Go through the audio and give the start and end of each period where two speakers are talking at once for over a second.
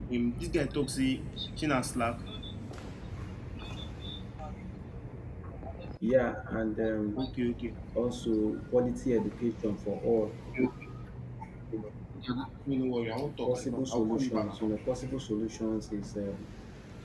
13.4-14.7

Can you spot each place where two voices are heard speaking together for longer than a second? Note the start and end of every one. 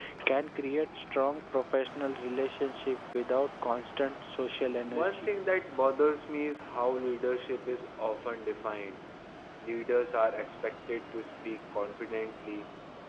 none

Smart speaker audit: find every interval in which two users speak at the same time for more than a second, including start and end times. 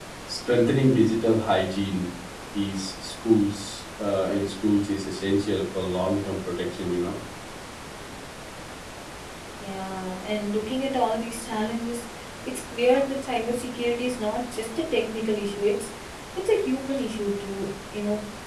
none

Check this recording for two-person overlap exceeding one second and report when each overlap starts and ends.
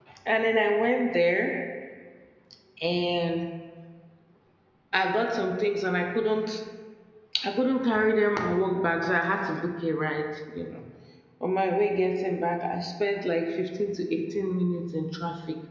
none

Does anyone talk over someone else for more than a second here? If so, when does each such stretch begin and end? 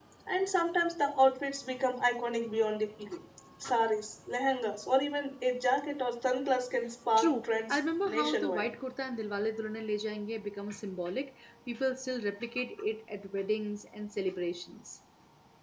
7.2-8.7

